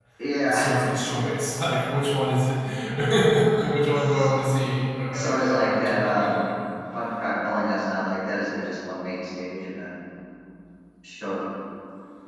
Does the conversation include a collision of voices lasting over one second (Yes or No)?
Yes